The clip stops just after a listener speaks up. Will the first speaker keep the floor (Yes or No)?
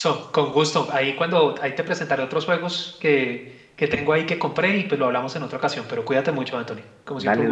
No